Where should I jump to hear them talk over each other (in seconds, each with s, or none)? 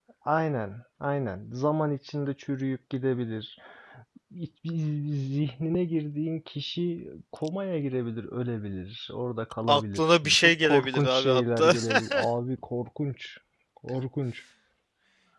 9.7 s